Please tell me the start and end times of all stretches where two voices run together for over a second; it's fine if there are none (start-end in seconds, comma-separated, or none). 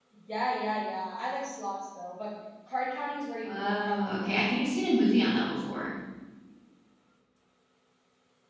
3.4-4.8